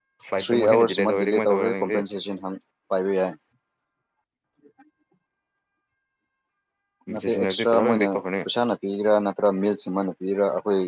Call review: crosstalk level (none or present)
present